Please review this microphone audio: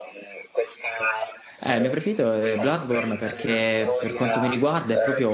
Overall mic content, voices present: both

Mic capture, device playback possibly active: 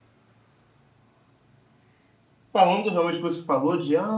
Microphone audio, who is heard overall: user only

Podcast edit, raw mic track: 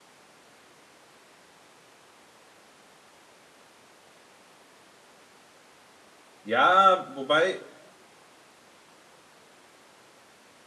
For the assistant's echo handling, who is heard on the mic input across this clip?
user only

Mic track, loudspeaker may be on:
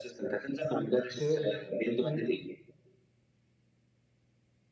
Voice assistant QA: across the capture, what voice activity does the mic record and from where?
both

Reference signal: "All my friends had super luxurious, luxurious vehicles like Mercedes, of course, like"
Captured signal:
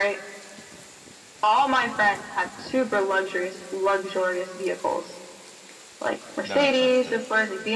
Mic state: both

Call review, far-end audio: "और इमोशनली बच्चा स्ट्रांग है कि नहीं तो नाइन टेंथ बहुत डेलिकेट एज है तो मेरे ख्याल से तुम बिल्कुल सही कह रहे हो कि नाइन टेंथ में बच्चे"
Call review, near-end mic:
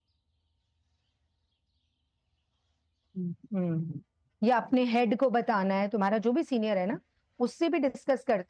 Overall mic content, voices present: user only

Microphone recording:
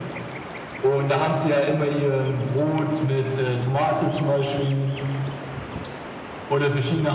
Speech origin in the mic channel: echo only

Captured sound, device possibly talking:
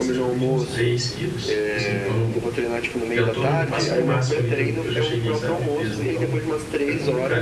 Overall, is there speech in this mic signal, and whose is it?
both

